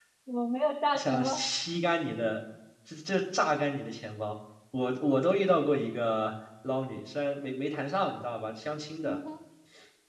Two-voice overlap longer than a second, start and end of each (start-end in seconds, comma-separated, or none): none